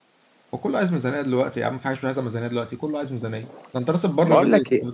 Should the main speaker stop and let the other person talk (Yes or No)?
Yes